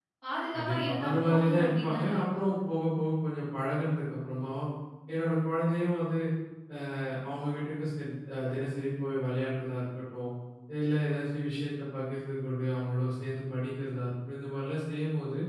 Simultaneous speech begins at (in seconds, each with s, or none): 0.5 s